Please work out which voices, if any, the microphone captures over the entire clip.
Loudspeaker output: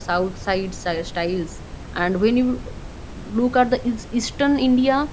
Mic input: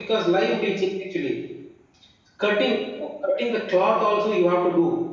user only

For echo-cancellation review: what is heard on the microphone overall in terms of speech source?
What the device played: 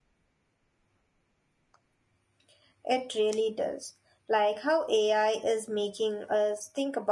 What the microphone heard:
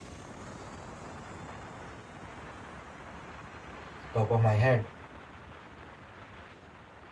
user only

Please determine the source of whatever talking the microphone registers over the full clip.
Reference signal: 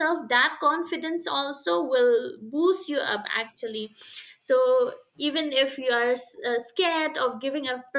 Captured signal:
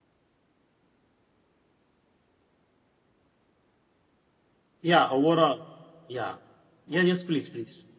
user only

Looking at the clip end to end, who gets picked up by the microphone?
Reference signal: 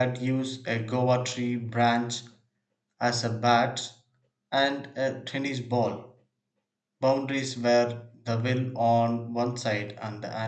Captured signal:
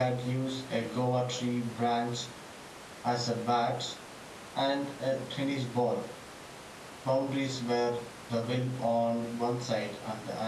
echo only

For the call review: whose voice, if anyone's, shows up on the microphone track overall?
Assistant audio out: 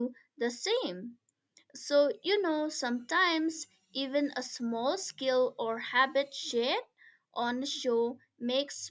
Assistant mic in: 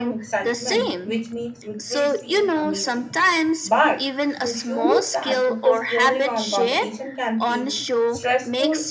both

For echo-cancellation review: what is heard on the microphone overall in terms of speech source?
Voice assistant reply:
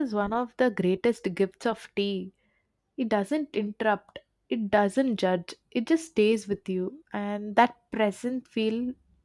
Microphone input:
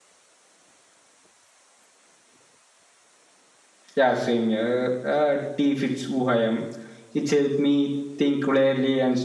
user only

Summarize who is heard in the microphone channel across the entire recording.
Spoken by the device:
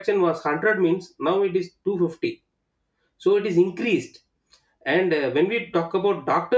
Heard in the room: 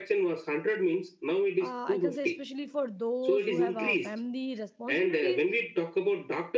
both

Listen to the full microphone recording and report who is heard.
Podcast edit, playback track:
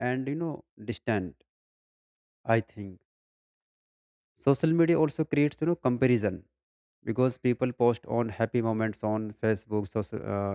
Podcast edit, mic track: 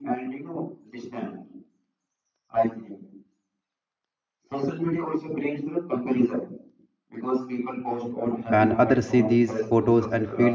both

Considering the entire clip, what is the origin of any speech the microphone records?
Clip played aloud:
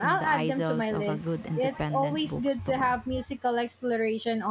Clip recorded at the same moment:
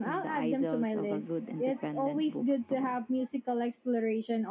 echo only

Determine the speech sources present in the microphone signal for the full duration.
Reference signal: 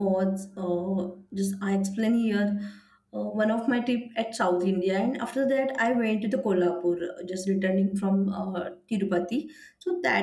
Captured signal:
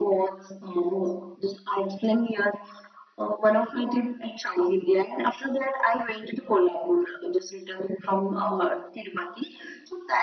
echo only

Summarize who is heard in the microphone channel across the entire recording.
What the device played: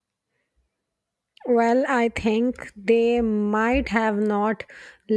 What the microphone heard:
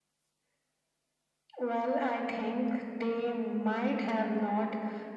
echo only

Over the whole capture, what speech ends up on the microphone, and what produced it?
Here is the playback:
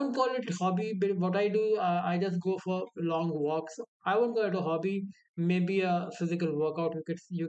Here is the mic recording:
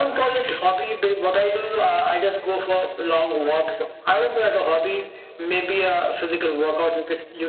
echo only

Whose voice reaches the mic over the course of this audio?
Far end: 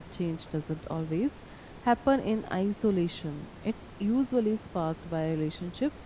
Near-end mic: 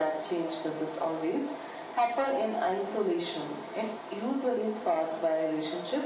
echo only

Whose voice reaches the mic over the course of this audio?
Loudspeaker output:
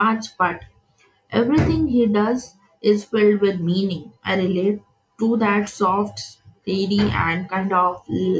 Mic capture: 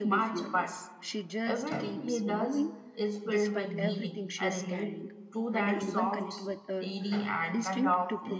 both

